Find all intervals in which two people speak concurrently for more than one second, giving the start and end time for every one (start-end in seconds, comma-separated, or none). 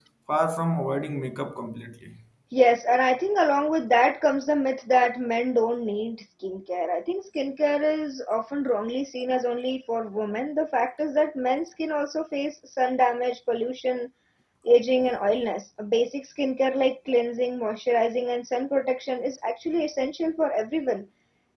none